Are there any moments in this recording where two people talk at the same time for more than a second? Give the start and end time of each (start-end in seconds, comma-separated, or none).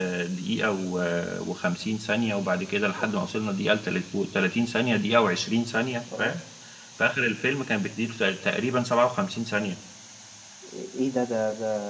none